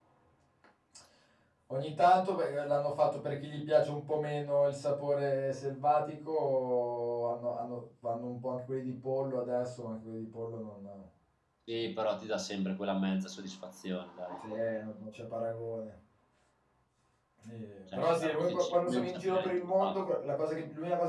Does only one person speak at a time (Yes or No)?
No